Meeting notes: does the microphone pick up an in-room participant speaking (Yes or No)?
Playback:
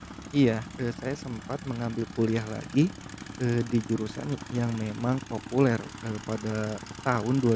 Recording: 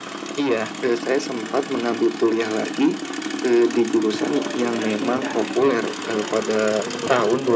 Yes